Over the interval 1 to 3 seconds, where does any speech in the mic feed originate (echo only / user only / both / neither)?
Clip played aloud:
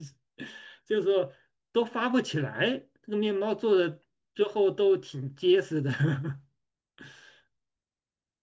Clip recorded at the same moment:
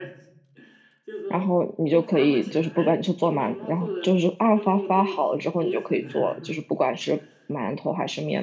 both